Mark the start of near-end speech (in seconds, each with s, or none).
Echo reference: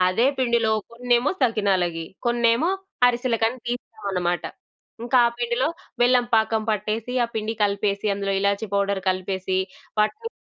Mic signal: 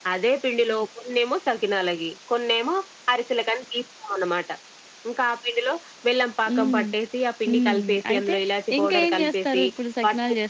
6.5 s